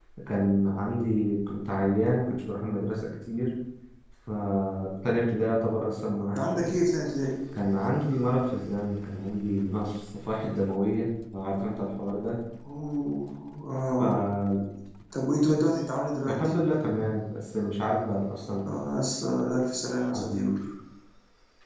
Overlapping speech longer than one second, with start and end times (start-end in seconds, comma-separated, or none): none